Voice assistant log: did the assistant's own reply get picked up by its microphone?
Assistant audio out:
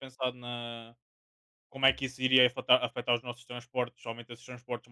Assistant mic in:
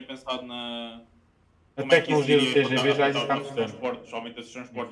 Yes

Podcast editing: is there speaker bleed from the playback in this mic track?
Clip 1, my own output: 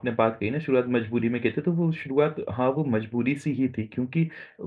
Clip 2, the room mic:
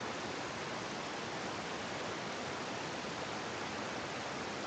No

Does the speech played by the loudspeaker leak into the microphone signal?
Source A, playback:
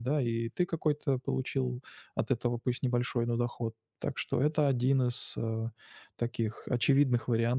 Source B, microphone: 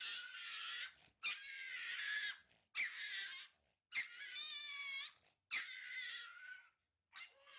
No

